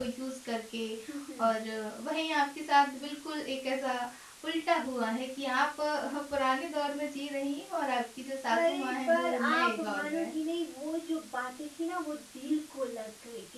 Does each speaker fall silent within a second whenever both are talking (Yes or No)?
No